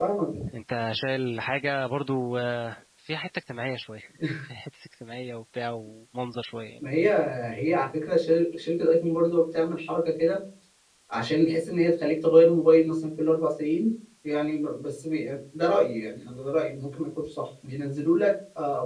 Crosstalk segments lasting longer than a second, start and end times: none

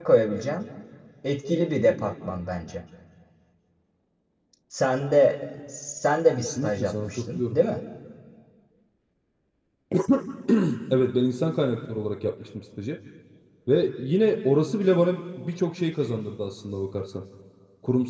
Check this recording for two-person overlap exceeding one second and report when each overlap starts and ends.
6.4-7.6

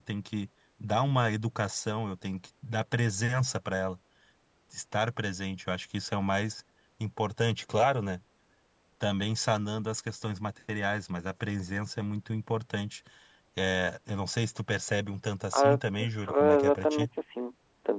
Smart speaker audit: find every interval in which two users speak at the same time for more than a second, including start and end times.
15.5-17.1

